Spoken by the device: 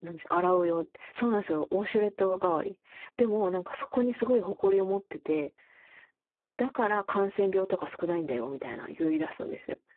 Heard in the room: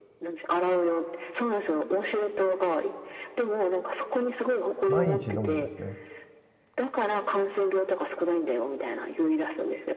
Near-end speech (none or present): present